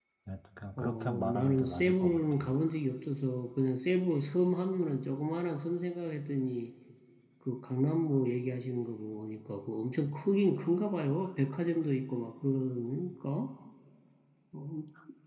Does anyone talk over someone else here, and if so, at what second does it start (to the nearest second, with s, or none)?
1 s